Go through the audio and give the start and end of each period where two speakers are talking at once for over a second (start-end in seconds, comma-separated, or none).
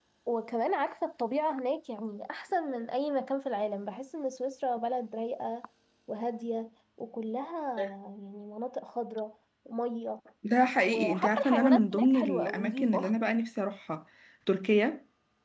10.8-13.1